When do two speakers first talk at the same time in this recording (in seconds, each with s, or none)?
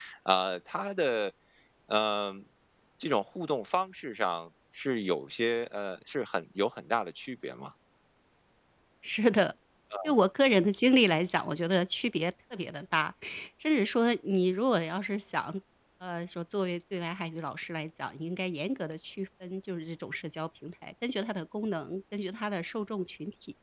none